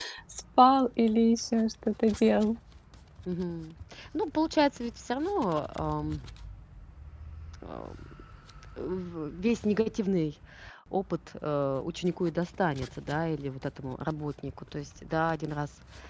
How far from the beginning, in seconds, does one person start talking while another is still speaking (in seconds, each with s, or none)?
none